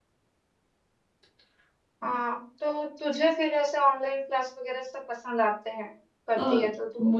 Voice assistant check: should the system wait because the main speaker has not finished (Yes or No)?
No